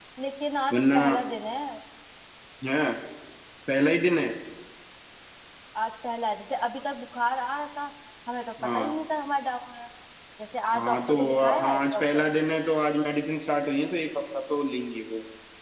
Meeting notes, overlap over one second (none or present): present